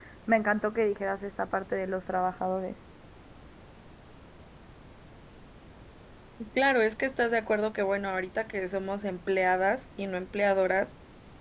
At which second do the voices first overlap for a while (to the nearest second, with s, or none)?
none